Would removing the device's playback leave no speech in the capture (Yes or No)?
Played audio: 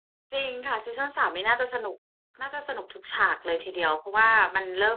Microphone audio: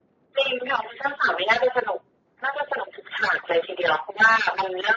Yes